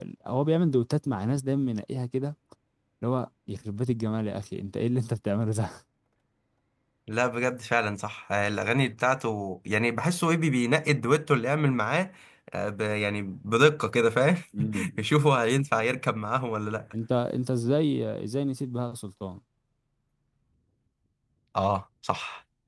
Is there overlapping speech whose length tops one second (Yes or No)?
No